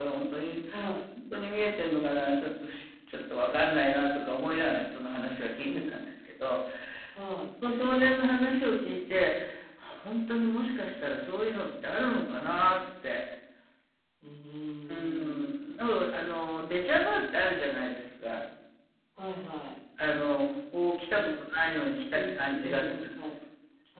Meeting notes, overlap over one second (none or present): present